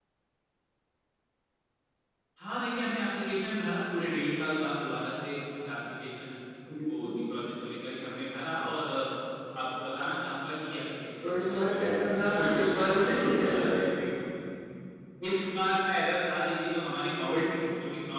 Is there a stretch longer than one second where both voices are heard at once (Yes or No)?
Yes